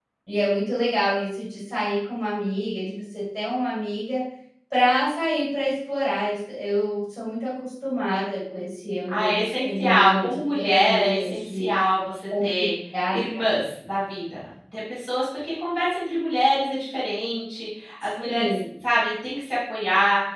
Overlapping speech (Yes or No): Yes